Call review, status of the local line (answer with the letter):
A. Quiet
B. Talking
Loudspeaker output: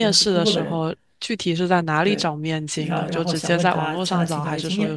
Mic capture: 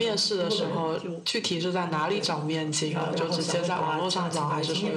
B